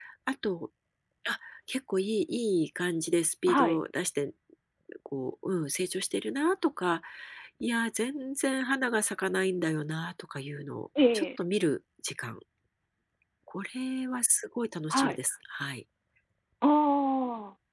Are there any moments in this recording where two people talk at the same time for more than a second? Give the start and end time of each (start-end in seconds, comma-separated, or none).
none